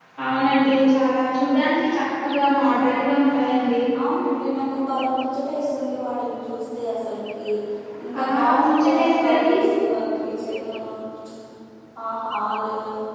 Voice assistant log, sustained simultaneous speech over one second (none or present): present